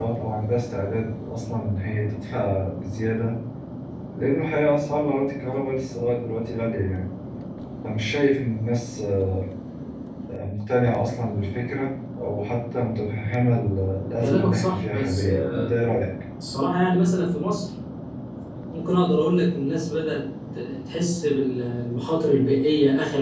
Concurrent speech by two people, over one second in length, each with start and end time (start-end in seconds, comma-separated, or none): 14.2-15.7